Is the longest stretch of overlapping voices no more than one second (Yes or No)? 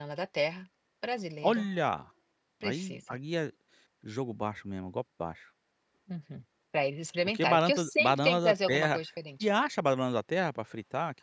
No